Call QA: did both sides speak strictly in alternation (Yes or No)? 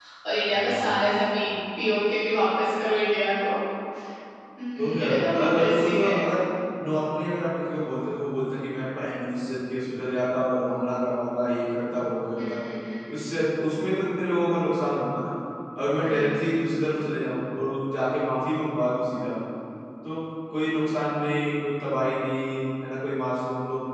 No